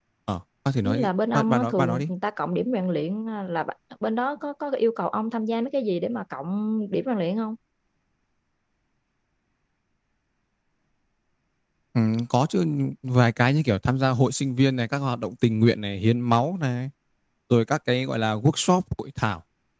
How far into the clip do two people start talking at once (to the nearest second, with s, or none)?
1 s